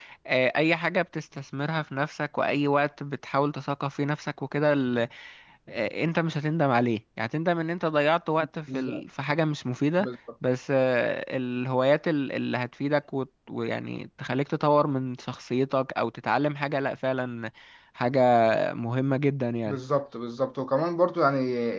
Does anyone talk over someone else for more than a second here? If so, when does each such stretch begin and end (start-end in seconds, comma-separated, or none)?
none